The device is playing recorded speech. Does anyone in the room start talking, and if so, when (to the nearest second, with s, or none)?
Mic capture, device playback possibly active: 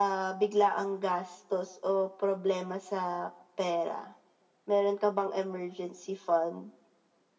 none